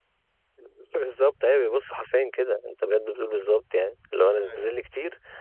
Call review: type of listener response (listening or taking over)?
listening